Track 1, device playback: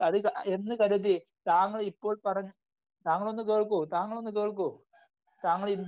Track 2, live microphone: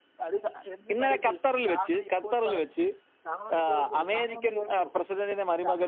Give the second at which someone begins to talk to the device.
0.9 s

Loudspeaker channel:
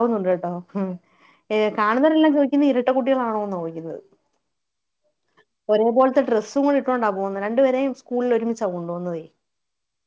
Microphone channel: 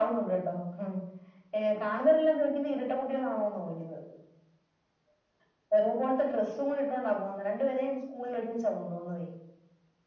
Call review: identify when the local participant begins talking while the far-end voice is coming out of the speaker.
none

